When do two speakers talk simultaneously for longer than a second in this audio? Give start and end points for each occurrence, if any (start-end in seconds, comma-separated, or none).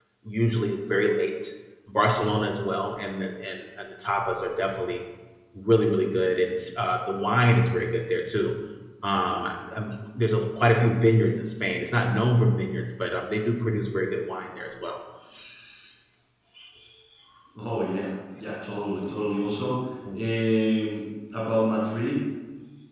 none